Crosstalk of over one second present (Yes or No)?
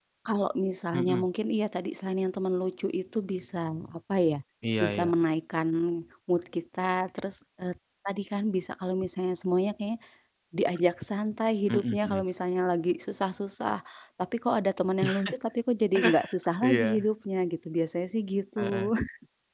No